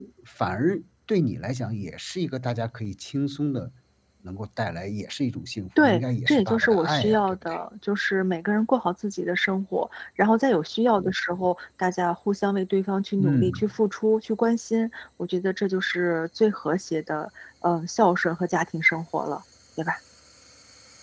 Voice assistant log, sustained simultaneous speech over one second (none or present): present